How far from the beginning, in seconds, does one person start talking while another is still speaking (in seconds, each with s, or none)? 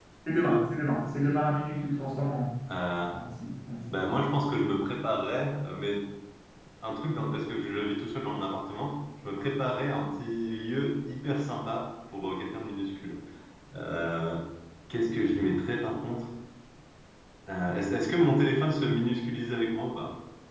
none